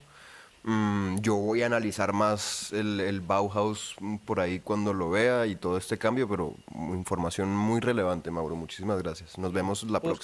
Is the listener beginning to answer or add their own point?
Yes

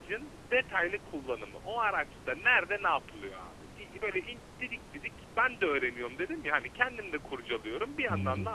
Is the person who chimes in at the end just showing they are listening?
Yes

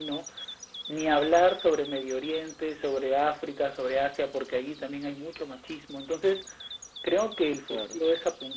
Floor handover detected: No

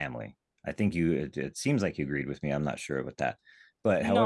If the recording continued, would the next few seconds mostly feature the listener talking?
Yes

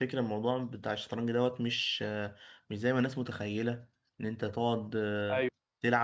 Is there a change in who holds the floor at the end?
No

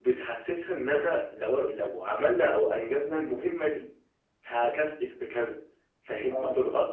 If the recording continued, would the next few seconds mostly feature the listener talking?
No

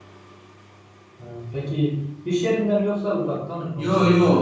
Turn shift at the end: Yes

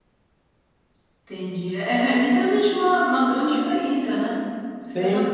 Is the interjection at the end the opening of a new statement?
Yes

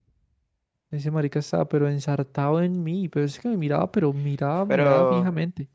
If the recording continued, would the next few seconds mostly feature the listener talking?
Yes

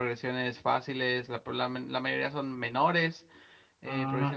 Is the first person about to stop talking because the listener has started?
Yes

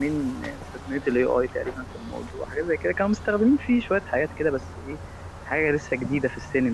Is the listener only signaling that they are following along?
Yes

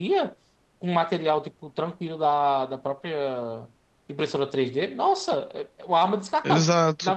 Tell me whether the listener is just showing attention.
Yes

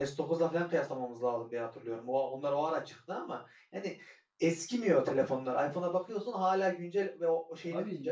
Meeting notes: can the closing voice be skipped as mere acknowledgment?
Yes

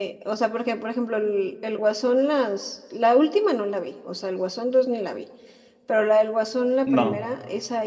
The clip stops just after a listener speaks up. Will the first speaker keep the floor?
Yes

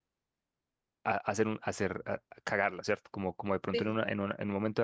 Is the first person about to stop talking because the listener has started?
No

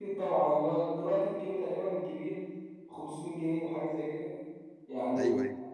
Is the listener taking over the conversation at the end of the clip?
No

